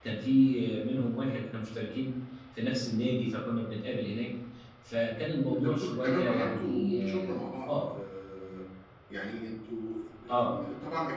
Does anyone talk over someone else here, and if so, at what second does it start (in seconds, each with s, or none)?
5.4 s